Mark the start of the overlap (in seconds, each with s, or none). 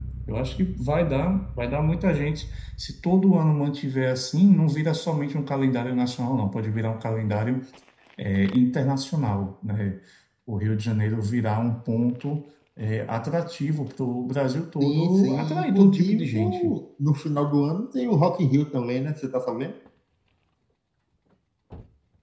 14.8 s